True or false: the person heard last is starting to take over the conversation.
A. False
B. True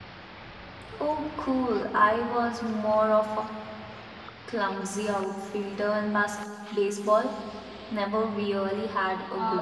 B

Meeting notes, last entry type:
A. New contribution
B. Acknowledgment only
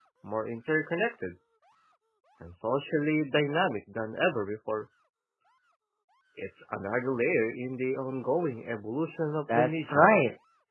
A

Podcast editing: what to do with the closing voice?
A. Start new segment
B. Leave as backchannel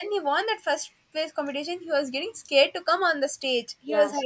A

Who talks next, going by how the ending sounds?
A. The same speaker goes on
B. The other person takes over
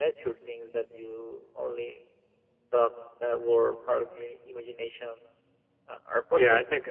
B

